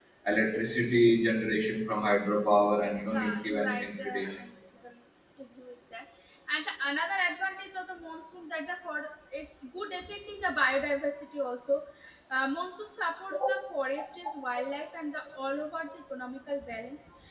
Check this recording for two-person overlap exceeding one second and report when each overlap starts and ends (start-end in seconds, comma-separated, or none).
3.1-4.3